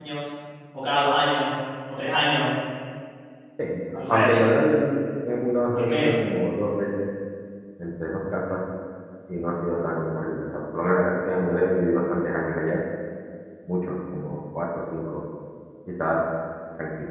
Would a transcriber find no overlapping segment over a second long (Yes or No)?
Yes